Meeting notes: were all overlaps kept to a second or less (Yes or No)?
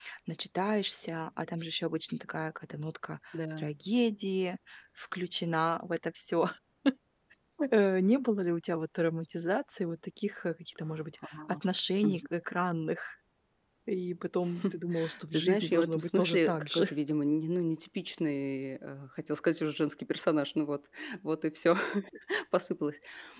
No